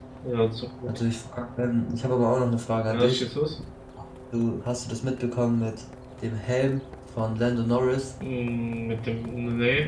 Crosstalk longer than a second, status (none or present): none